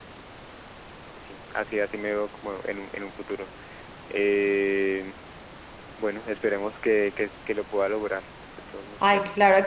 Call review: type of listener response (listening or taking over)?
taking over